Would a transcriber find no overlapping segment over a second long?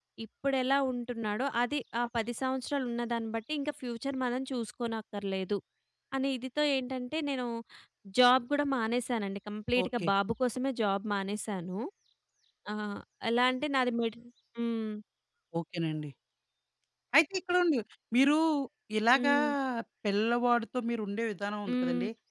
Yes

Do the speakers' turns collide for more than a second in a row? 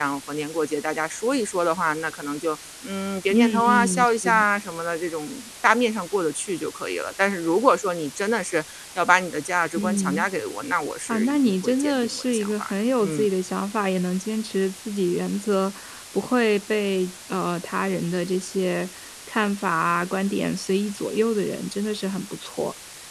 Yes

